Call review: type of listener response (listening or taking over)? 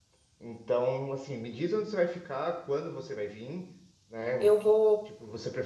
listening